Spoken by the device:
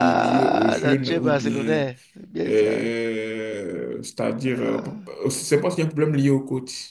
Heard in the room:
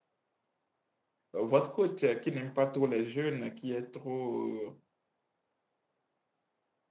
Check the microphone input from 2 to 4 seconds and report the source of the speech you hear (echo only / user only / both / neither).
user only